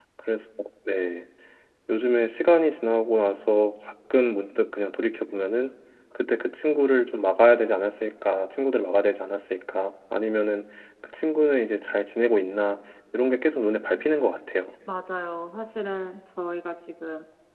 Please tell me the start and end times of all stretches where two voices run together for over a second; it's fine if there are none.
none

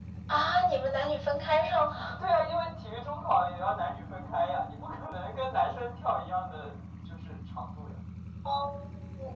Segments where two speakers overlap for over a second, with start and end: none

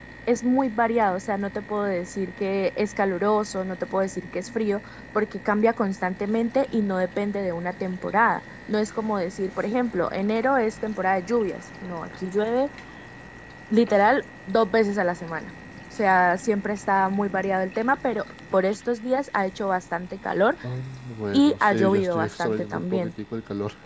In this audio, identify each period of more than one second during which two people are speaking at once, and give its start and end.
21.3-23.1

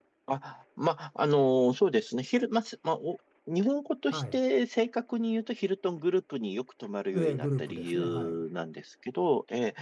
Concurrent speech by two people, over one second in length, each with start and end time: 7.1-8.4

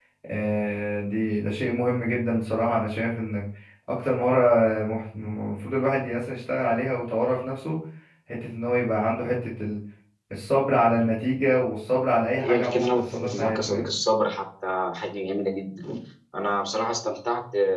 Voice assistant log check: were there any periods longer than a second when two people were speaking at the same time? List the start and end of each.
12.4-13.8

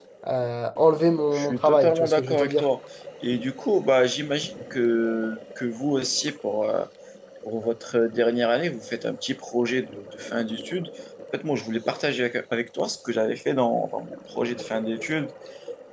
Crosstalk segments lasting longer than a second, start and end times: 1.3-2.7

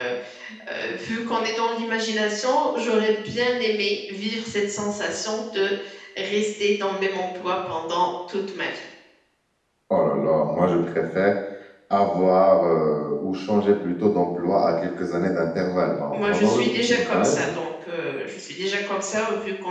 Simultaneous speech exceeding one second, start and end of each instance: 16.1-17.4

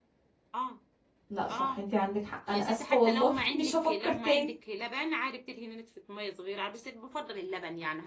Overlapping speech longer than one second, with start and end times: 2.5-4.5

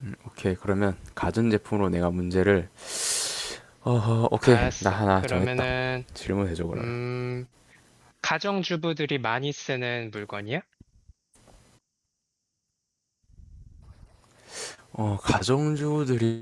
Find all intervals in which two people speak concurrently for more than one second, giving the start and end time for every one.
4.4-5.7

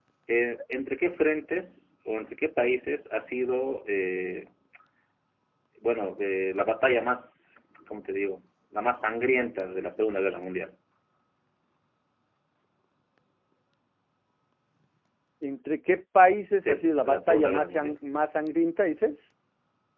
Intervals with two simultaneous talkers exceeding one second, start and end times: 16.7-18.0

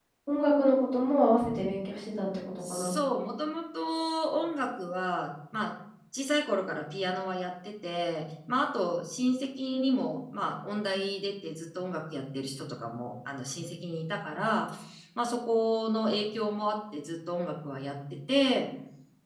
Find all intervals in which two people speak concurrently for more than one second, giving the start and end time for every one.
none

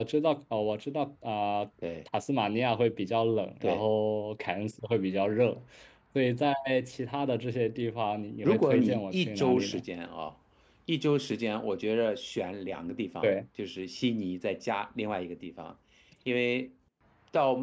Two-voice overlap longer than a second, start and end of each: 8.4-9.8

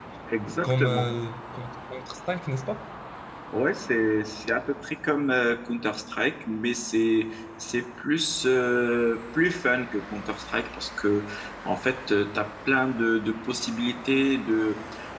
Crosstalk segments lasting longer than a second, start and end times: none

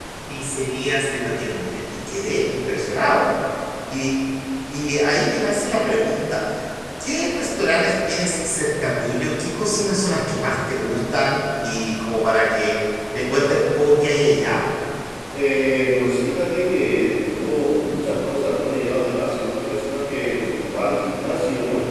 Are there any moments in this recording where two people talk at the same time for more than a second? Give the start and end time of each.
none

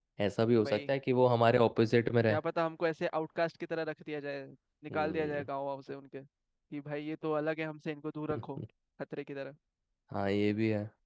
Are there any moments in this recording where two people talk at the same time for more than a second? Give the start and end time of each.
none

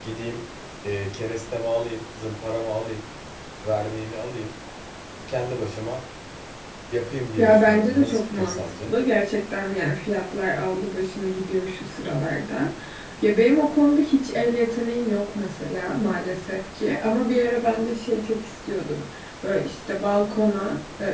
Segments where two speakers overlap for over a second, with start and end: 7.4-8.9

